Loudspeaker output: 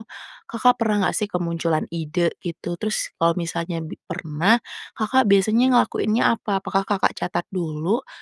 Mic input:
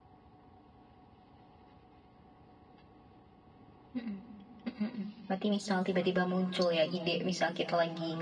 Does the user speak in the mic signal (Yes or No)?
Yes